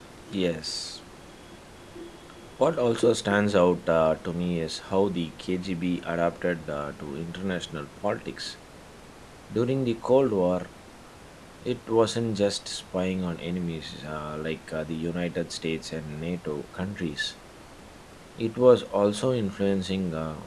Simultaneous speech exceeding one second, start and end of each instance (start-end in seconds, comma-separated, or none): none